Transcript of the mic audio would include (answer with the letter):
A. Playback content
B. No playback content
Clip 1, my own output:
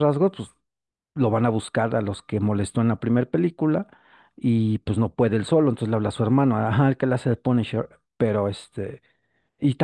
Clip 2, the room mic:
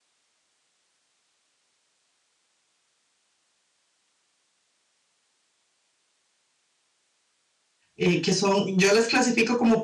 B